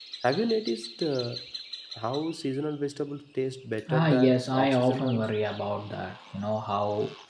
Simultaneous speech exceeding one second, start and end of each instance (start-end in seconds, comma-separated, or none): 3.9-5.3